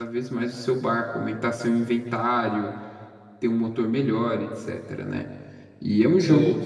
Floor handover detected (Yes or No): No